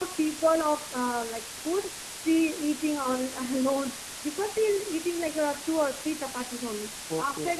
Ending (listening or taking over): listening